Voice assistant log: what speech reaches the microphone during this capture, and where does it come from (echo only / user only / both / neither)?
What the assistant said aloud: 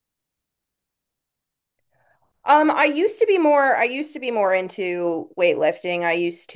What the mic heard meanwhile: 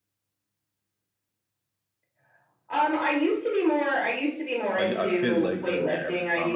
both